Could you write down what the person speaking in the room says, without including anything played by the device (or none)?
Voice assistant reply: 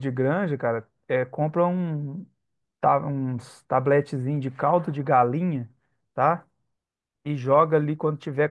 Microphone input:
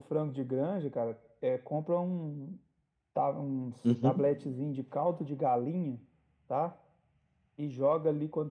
Uhum.